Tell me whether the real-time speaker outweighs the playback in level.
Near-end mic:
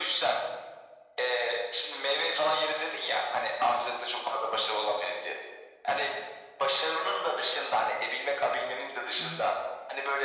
No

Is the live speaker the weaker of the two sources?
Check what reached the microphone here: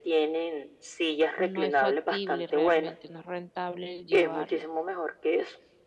Yes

